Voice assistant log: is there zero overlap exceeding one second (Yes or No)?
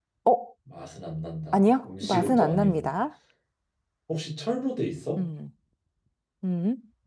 No